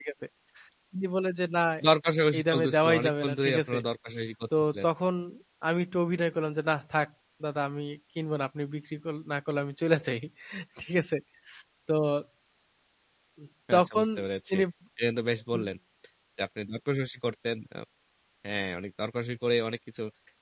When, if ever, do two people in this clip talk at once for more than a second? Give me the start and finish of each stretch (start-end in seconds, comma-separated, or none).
2.4-3.8